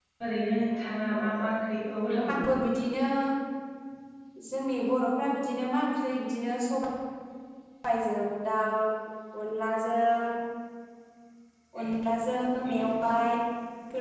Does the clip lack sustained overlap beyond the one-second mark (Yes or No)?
Yes